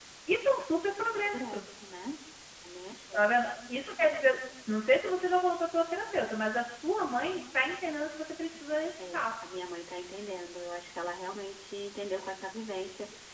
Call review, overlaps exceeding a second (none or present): none